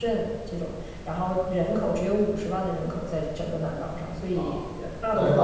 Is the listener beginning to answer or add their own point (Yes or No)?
Yes